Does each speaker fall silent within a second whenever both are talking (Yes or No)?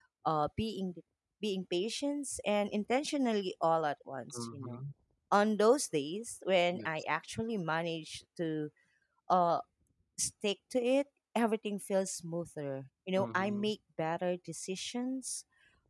Yes